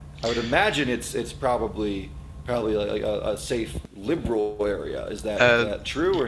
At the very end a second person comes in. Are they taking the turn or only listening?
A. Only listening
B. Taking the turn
B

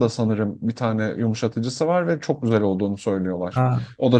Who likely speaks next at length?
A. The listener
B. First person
A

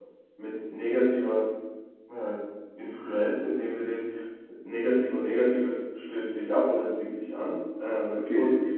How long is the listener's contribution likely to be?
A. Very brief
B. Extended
A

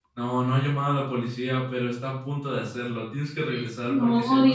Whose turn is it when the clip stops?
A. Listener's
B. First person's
A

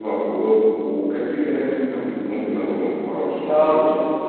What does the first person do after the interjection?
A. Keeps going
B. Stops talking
B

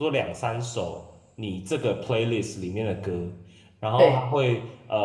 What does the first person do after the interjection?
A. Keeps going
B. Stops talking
A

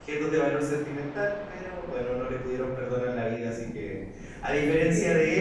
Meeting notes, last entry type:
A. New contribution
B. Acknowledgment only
B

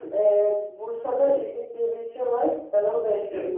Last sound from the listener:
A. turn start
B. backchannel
B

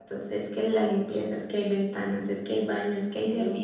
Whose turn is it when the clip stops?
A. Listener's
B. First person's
B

